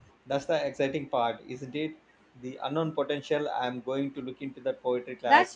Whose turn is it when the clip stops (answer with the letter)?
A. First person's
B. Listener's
B